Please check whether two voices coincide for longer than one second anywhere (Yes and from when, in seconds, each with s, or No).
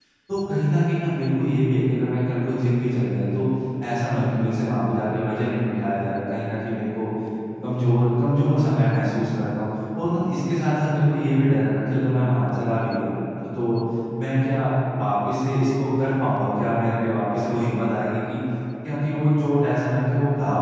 No